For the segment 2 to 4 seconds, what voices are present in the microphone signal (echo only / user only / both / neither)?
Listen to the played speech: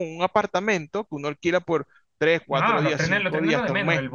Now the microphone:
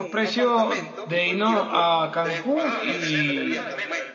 both